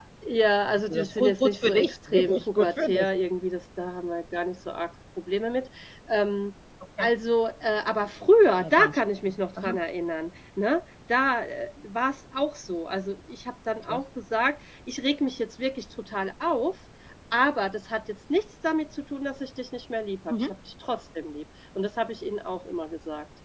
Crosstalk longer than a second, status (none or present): present